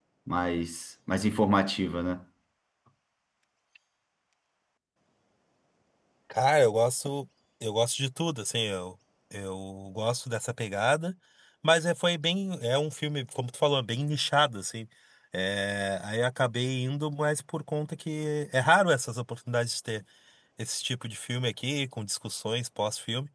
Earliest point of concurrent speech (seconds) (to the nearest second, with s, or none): none